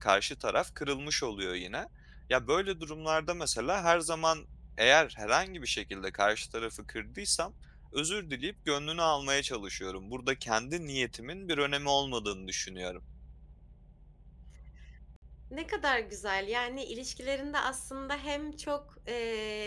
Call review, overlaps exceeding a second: none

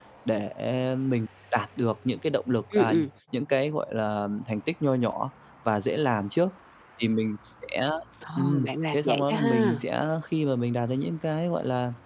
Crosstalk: present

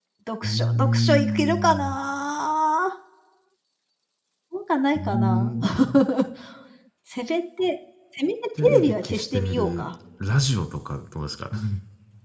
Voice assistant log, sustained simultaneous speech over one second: present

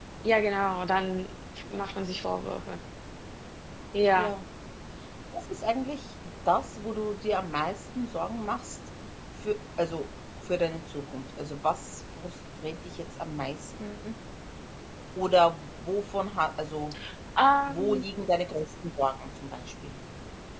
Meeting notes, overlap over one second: none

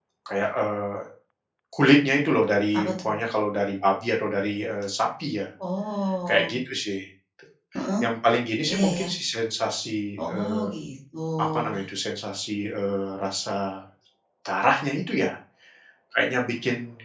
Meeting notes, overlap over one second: none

